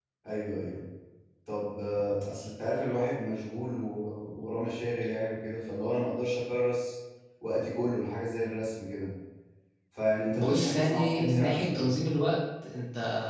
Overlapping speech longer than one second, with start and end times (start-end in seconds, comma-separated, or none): 10.4-11.9